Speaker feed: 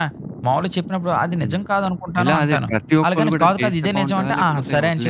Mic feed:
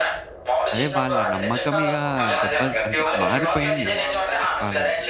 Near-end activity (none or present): present